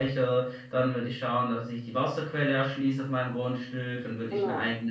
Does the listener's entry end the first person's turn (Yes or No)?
No